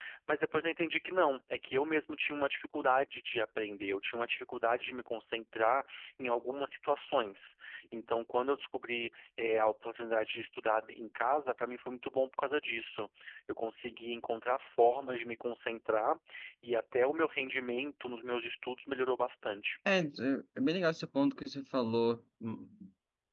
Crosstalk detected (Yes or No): No